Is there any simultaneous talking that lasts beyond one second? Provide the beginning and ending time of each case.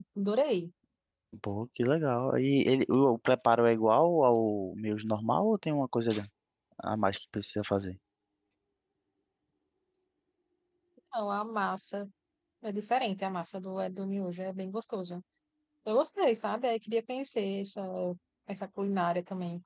none

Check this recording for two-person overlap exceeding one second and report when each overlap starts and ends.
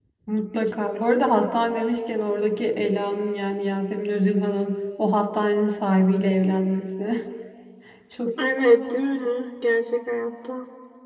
none

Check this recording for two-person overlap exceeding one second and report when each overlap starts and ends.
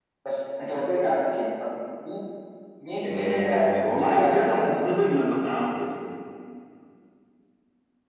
3.0-5.1

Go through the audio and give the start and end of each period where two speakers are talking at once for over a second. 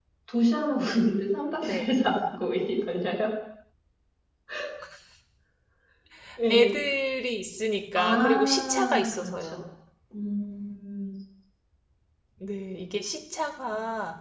8.0-9.6

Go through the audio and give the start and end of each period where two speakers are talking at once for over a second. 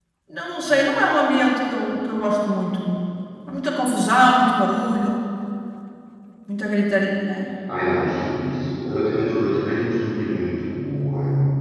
none

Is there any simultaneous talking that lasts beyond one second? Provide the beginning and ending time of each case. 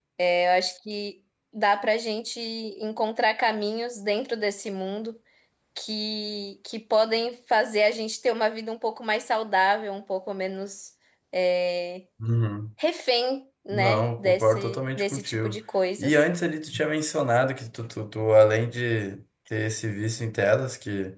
13.7-15.6

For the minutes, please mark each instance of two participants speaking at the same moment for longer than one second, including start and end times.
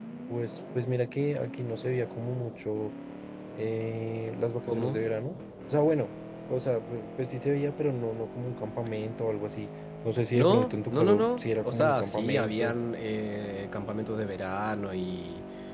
10.3-12.8

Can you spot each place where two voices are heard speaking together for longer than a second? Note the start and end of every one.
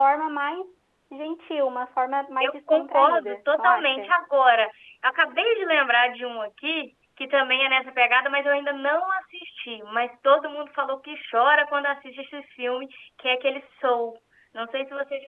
2.4-4.1

